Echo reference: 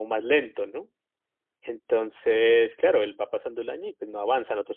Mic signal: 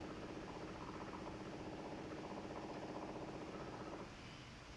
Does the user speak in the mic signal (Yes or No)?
No